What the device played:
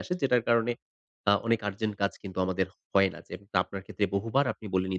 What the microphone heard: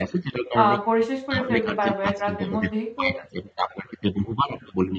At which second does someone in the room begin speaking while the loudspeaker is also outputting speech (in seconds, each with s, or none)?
0.6 s